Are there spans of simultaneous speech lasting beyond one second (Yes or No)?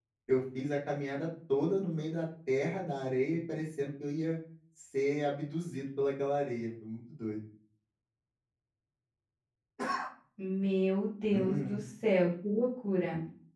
No